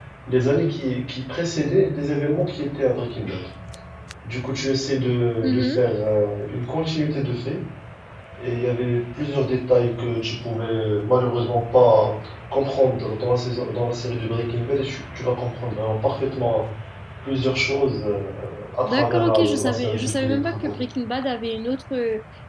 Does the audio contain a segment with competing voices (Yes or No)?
Yes